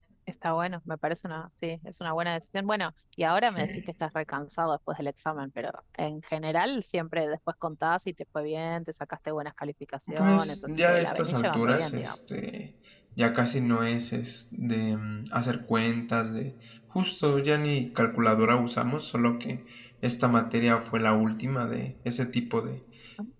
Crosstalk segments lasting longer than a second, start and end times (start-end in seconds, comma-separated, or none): 10.2-12.2